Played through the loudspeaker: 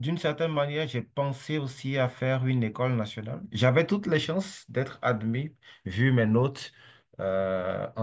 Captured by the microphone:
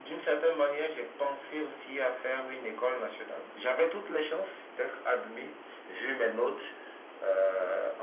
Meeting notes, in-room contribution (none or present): none